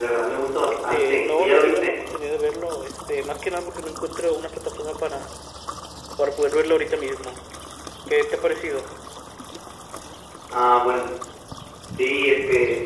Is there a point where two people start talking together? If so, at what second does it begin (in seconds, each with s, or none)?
0.7 s